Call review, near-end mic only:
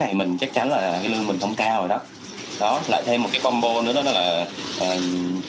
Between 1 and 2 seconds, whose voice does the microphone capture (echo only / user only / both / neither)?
echo only